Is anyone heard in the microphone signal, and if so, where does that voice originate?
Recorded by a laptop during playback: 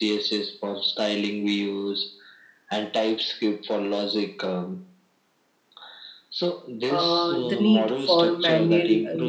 both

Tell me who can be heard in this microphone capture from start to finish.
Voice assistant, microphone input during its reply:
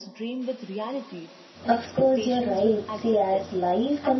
both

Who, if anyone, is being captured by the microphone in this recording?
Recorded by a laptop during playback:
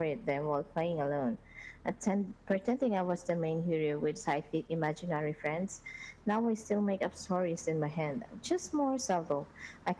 echo only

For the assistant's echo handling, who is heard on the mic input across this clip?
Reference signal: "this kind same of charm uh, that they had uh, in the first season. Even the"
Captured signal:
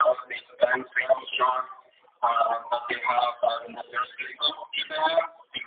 echo only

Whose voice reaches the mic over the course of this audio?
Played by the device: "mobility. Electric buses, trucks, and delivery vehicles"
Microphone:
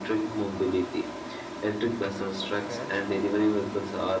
both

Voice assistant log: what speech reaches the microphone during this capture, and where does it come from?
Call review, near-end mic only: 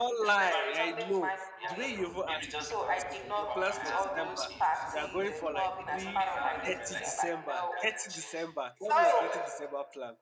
both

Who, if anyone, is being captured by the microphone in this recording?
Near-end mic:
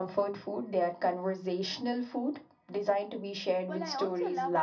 both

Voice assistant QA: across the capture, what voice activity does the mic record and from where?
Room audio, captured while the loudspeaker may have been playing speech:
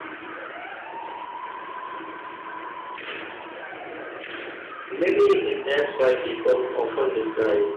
user only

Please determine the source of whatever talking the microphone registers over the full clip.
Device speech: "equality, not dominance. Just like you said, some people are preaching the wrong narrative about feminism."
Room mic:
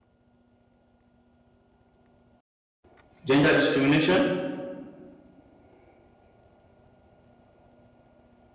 user only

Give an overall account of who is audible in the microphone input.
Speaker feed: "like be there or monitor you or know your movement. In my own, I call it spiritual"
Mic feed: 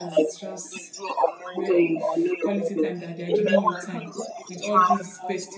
both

